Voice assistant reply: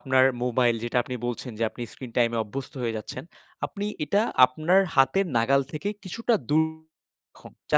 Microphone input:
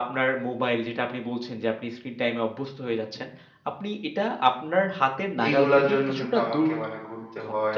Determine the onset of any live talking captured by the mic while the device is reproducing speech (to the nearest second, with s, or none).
5 s